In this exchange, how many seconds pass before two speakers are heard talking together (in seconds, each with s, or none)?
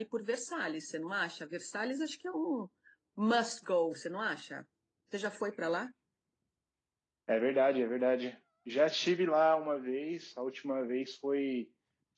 none